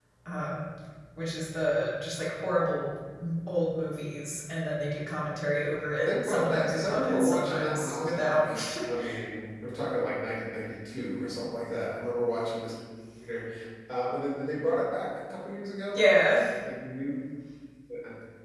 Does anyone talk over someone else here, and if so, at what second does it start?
6 s

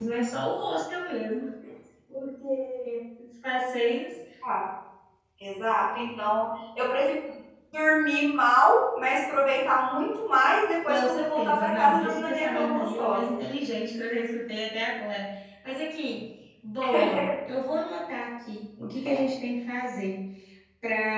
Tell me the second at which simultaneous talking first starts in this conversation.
11 s

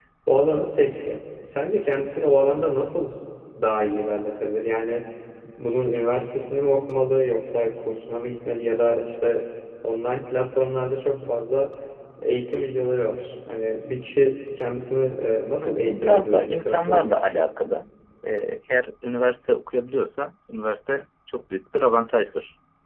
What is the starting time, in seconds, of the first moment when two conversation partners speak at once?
16 s

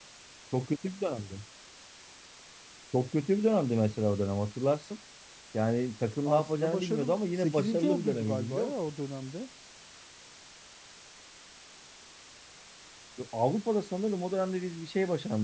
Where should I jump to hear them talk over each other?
6 s

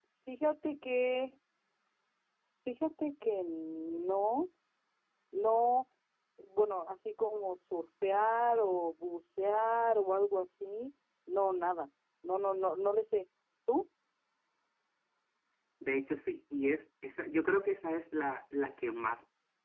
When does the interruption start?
none

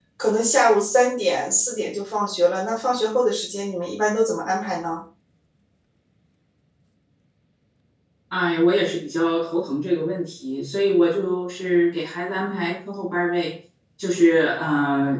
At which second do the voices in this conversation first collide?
none

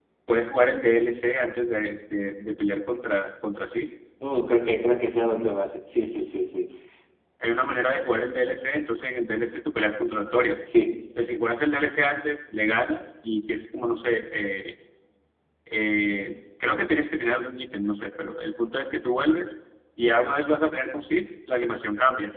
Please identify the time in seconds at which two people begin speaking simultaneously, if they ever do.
none

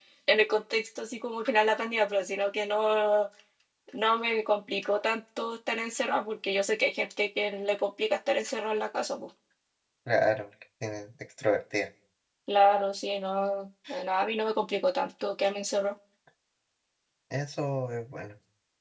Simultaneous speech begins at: none

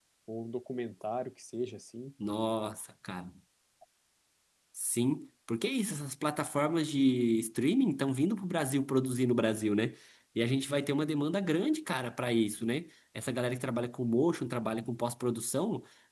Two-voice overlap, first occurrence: none

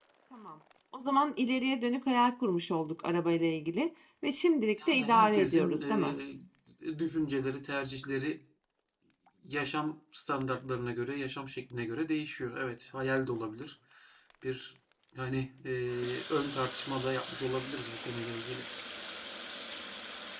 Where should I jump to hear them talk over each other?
5 s

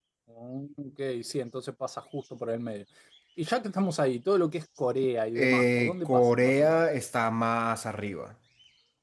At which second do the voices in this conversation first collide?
5 s

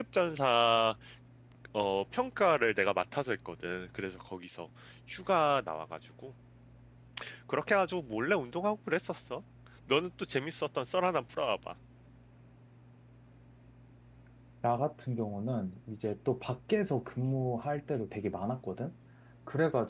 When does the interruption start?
none

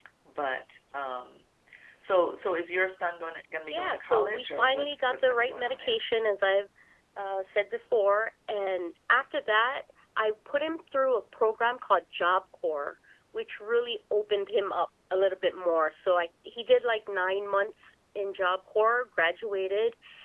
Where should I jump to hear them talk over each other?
4 s

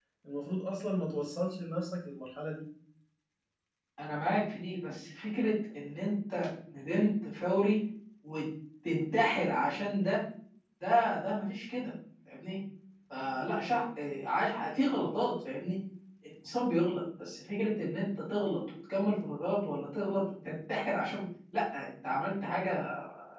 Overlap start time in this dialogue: none

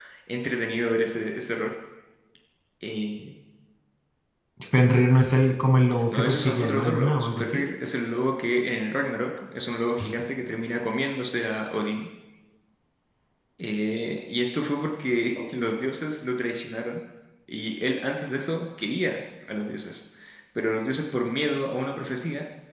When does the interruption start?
6 s

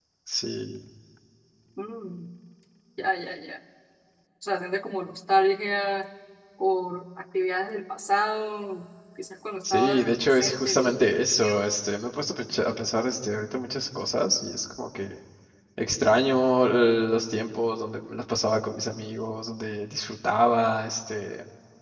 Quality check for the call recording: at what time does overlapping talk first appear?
10 s

